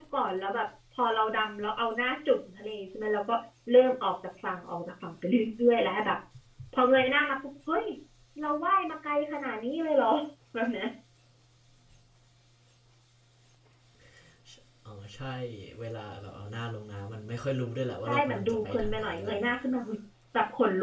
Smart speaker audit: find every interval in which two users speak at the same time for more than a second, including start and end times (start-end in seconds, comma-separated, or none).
18.1-19.6